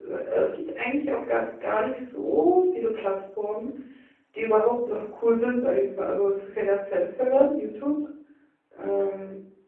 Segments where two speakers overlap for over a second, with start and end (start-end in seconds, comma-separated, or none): none